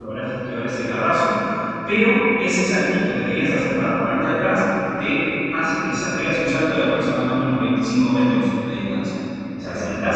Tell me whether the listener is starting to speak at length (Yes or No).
No